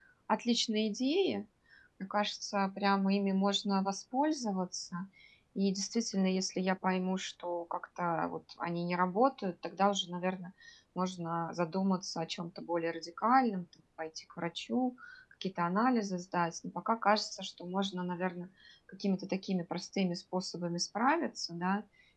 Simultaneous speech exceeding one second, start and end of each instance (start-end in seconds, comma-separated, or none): none